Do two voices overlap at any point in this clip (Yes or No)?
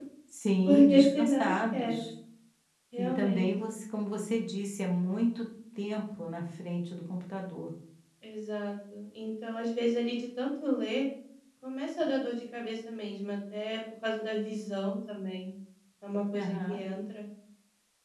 Yes